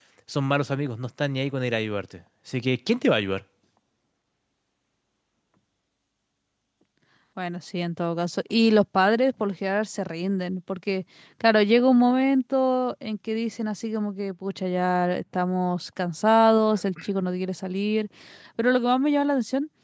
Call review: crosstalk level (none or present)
none